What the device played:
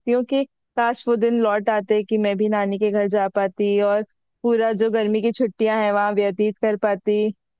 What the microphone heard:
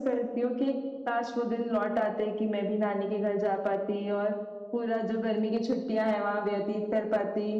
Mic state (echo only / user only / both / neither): echo only